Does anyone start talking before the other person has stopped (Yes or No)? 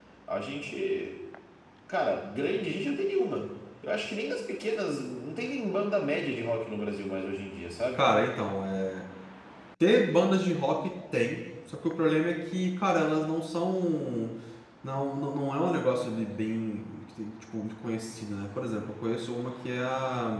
No